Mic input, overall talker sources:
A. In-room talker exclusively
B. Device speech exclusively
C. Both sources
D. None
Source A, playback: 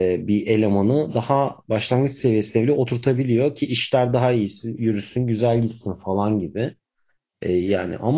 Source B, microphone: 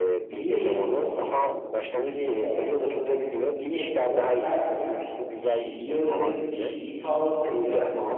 C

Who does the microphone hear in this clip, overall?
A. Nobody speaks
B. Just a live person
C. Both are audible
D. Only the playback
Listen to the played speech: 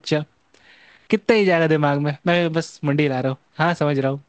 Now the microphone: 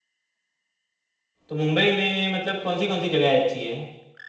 B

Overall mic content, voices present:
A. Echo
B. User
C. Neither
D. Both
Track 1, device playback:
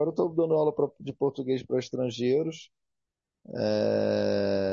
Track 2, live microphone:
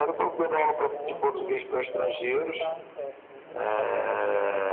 D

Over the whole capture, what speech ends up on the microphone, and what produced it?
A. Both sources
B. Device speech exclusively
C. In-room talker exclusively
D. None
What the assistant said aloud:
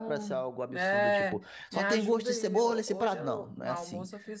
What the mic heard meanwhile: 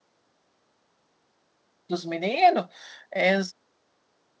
C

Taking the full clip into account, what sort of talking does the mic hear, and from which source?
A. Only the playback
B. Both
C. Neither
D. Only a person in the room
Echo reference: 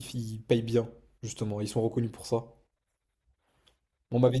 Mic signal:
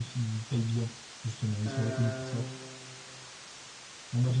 B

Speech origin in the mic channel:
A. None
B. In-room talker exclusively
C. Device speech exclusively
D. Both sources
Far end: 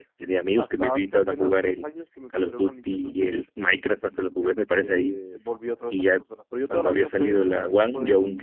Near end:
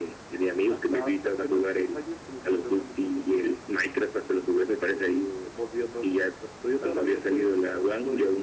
C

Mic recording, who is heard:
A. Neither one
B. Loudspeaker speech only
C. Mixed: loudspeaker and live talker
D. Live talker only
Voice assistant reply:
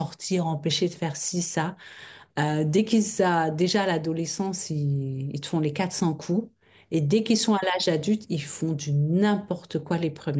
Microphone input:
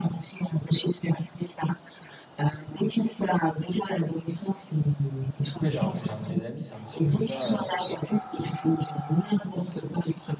C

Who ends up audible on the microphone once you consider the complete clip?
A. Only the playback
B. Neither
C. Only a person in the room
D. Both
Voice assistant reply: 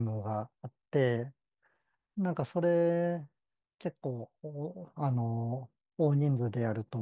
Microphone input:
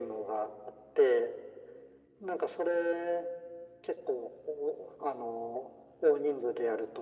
A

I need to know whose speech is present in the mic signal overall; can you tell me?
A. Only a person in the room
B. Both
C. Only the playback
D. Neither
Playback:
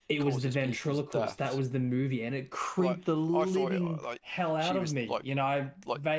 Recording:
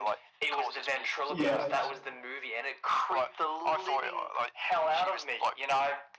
B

